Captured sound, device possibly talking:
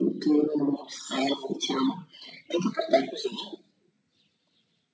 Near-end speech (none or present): none